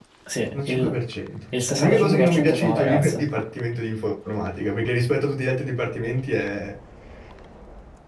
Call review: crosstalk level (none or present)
present